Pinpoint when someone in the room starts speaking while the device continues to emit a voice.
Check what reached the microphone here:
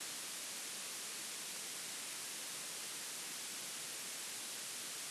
none

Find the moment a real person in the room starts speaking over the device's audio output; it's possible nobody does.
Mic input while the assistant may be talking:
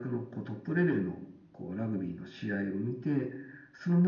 none

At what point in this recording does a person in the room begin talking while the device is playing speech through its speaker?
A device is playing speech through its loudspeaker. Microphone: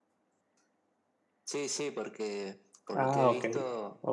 2.9 s

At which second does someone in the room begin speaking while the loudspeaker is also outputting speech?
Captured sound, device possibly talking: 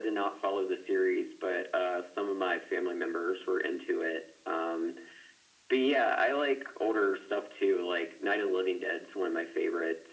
none

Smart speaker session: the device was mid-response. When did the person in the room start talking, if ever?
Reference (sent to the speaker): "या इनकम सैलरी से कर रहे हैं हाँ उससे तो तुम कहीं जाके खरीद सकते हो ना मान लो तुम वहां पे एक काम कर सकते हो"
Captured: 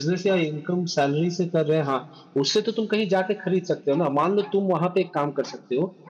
none

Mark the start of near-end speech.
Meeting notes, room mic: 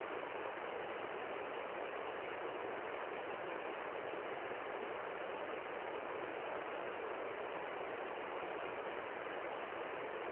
none

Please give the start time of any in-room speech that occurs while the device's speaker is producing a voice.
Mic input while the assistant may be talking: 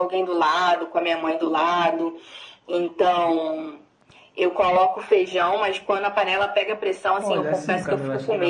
7.2 s

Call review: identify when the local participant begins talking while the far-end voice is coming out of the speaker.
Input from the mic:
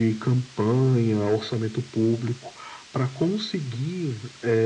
none

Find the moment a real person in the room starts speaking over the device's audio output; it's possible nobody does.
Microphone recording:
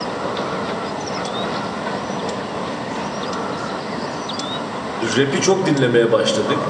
5.0 s

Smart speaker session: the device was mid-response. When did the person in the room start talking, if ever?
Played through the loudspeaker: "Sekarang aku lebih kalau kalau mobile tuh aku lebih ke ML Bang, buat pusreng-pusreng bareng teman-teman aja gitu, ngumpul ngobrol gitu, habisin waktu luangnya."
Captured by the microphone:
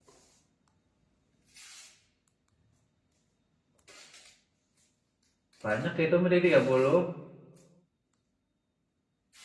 5.6 s

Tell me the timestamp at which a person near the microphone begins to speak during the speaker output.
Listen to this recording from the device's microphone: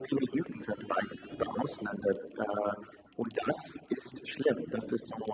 none

